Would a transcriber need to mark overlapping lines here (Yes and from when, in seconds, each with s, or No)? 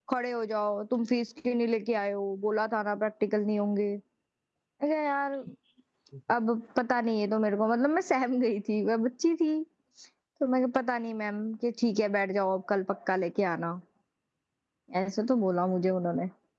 No